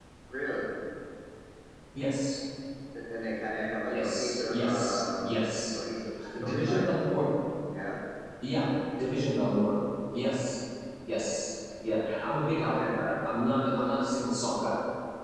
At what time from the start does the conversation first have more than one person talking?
4 s

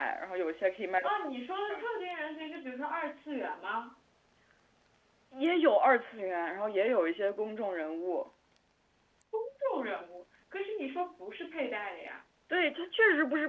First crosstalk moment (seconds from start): none

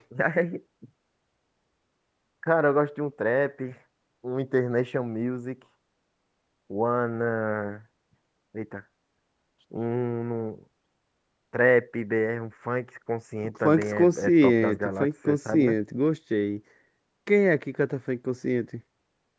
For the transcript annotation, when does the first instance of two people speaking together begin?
13 s

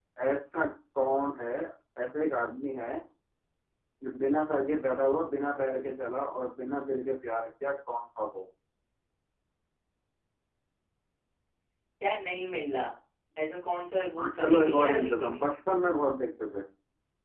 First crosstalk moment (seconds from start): 14 s

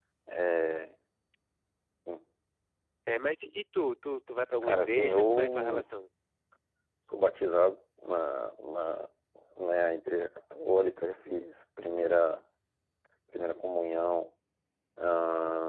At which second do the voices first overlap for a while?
5 s

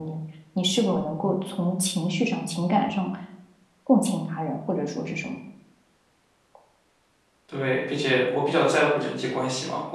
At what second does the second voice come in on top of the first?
none

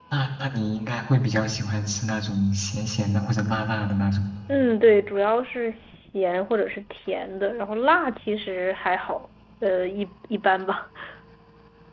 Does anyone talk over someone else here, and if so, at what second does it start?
none

